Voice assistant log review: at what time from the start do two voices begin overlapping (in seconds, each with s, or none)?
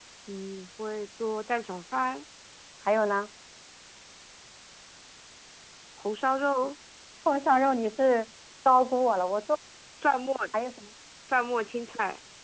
none